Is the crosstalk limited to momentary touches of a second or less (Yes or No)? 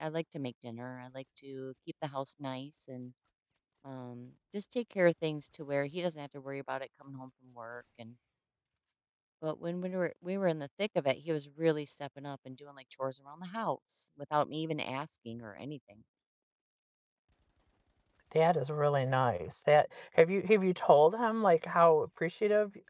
Yes